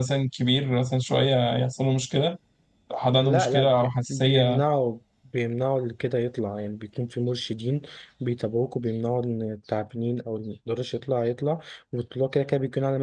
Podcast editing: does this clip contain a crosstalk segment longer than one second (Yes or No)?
Yes